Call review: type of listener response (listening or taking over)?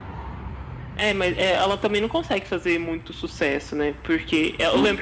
listening